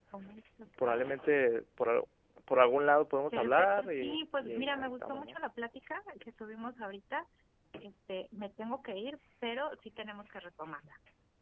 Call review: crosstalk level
present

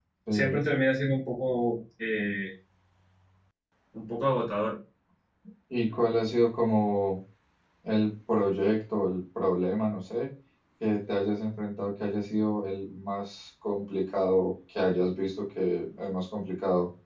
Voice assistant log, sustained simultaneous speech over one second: none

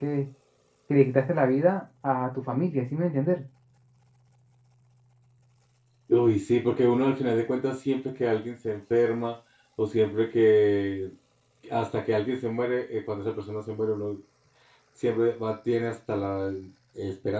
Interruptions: none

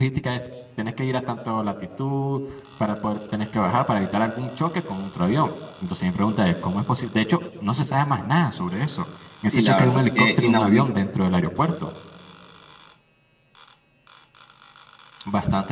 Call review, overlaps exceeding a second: present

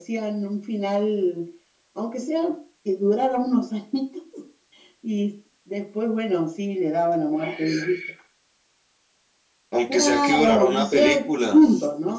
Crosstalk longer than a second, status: present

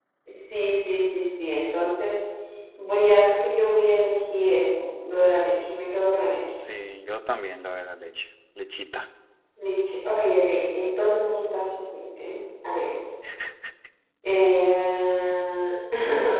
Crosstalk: none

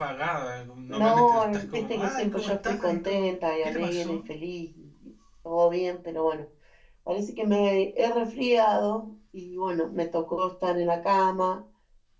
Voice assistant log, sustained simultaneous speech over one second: present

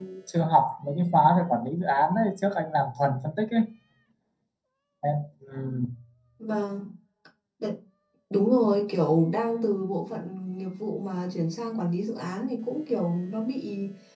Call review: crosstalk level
none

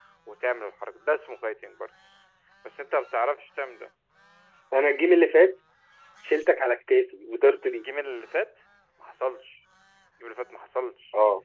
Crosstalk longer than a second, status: none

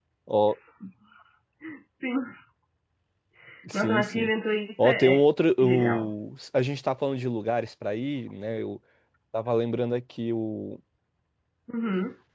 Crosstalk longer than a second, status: none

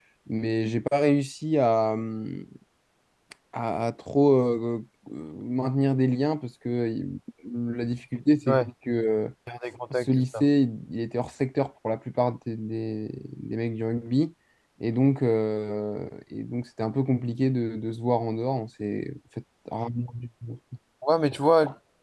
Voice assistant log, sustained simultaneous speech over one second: none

